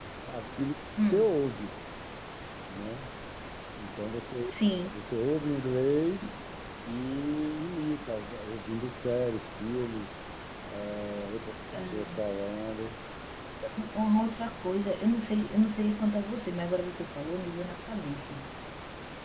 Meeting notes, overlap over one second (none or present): none